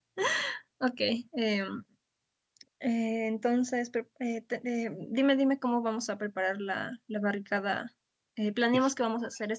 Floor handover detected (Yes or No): No